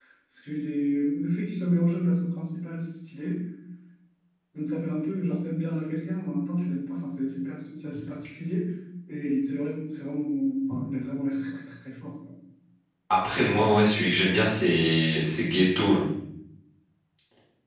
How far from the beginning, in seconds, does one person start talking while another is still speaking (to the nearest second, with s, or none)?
none